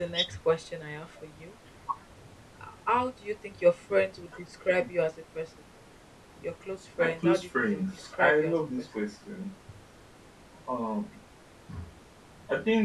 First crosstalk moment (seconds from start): 7.0 s

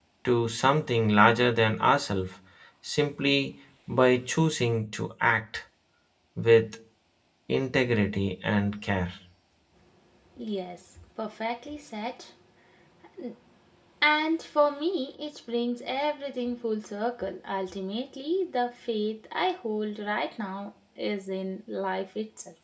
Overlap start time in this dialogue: none

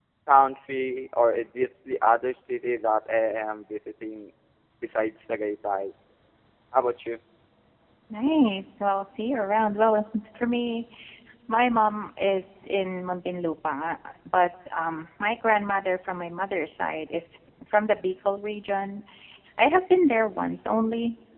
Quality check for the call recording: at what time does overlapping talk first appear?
none

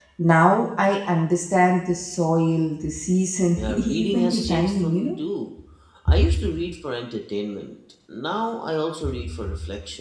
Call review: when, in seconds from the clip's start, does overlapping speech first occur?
3.6 s

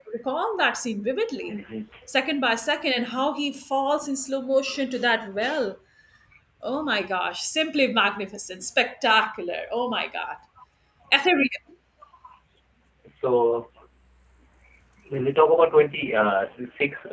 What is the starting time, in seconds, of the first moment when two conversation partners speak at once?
none

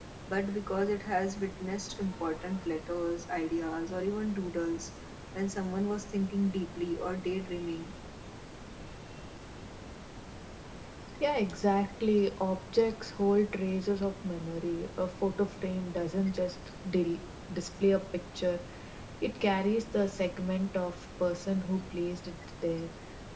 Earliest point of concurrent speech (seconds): none

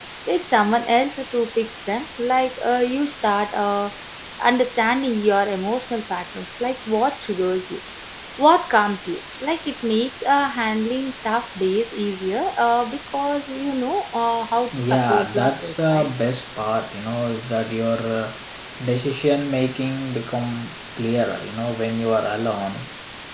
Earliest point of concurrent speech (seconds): 14.7 s

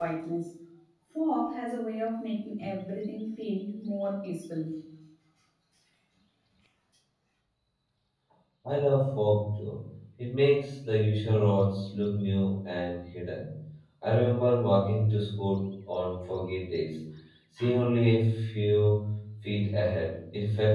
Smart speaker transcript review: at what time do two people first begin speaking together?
none

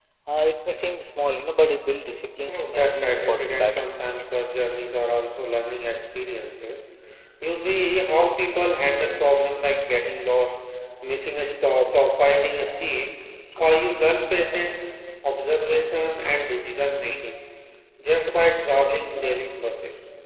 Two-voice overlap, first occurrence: 2.5 s

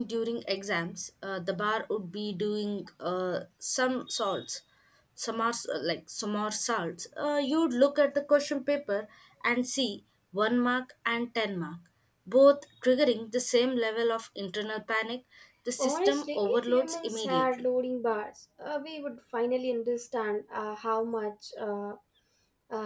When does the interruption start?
15.8 s

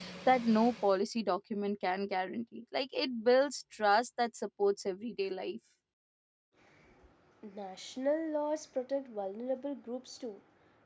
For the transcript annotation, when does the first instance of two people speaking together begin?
none

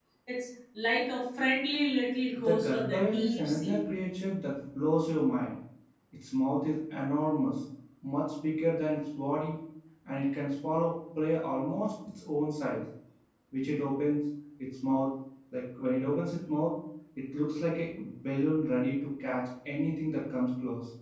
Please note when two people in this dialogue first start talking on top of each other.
2.4 s

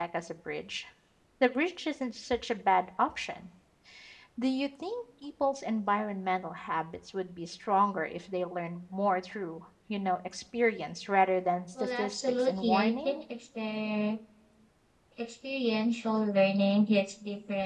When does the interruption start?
11.8 s

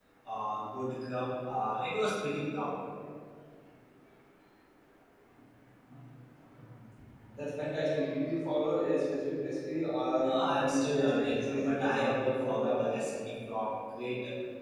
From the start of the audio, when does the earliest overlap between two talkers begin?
10.2 s

